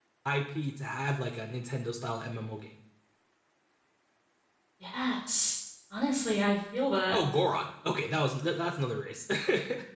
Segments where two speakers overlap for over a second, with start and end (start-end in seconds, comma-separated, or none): none